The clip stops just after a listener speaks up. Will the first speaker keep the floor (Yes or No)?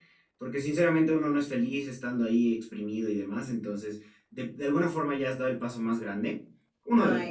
Yes